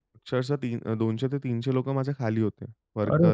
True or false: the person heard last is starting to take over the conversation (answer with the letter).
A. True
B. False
B